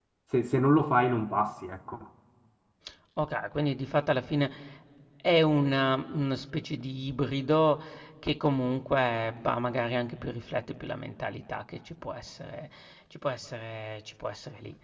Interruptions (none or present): none